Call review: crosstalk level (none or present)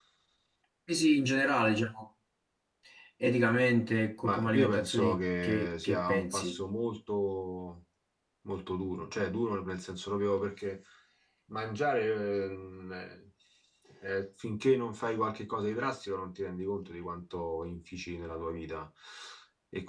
present